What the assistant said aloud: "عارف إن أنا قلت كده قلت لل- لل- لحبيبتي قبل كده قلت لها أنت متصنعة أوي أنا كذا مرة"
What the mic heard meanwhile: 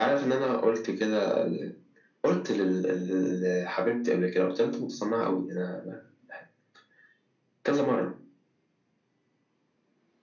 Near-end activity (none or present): none